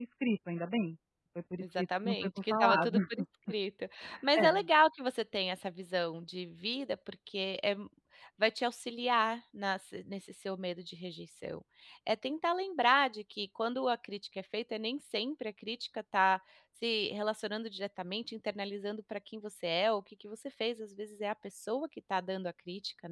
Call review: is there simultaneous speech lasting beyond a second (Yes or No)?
Yes